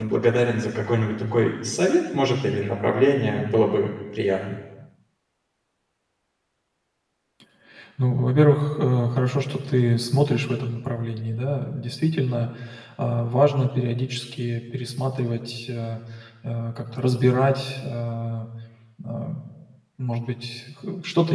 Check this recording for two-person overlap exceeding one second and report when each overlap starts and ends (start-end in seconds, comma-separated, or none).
none